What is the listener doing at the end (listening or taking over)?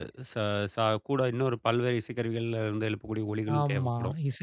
taking over